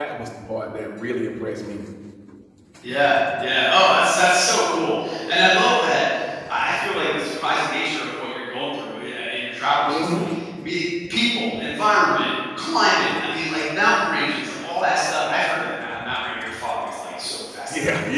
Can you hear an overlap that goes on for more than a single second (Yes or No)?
No